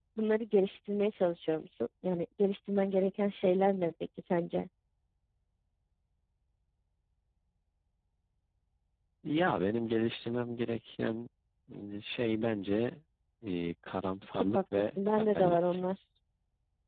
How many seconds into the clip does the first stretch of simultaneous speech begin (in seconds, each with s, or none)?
14.3 s